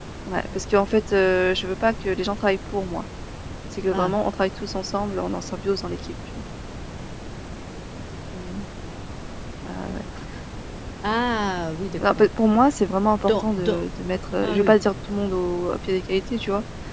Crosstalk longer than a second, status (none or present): none